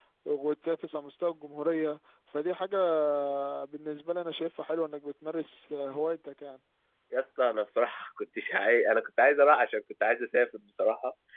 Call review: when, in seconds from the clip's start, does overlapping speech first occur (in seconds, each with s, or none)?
none